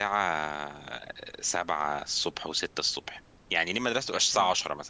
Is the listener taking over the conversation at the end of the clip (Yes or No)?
No